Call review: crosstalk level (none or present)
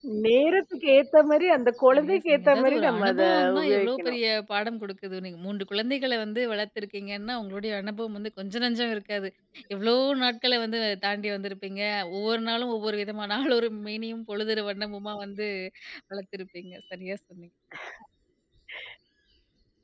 present